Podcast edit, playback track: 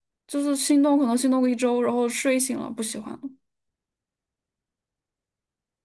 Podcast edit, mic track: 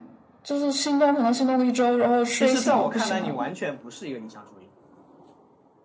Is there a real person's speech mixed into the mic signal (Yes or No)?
Yes